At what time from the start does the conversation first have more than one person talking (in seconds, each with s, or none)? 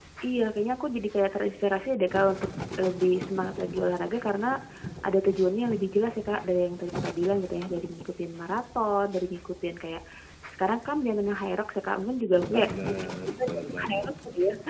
12.5 s